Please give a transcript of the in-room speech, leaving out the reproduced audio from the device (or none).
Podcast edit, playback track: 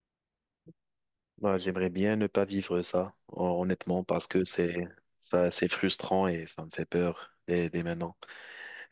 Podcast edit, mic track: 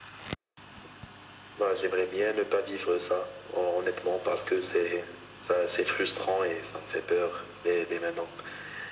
none